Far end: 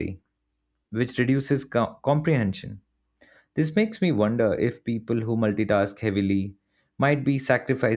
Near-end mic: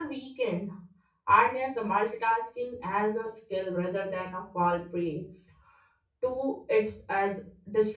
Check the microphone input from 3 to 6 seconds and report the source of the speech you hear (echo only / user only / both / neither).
user only